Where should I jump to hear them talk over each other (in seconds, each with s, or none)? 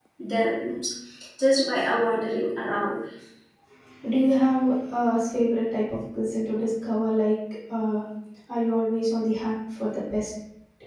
none